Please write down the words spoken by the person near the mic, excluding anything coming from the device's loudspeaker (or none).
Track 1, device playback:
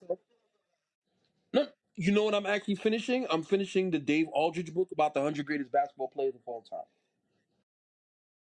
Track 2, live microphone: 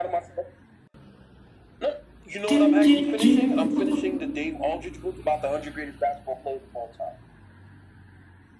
Do, do, do.